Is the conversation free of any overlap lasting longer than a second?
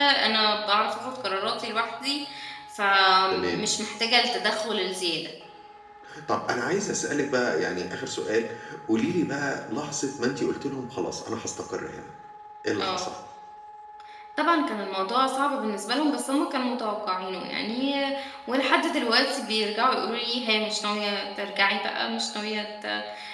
Yes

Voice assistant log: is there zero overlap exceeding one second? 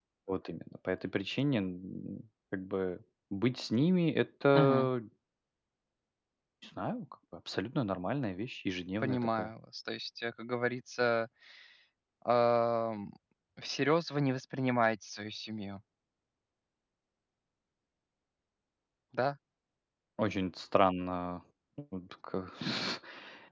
Yes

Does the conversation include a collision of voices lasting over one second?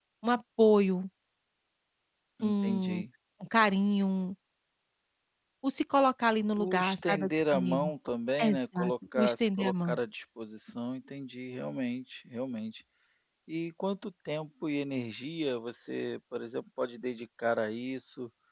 Yes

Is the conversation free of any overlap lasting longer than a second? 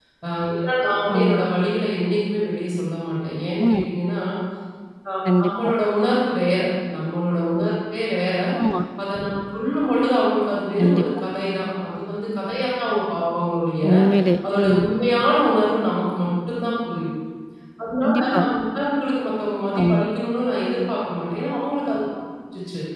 Yes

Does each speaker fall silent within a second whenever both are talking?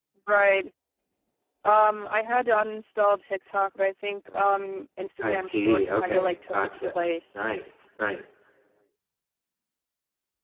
No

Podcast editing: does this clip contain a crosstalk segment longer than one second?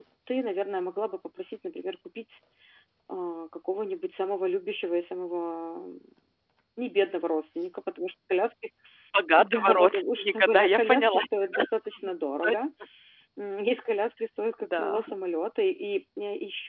Yes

